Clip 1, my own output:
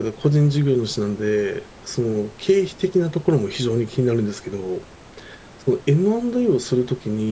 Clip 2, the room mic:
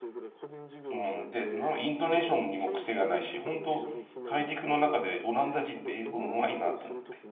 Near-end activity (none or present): present